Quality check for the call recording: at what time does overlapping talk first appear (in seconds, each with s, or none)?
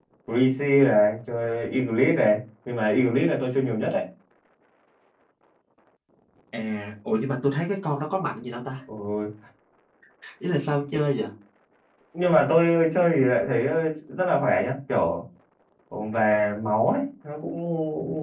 none